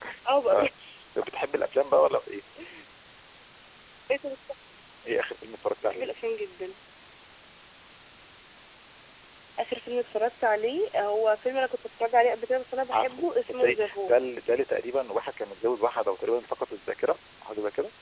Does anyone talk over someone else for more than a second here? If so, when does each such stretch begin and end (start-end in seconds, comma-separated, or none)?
12.9-14.1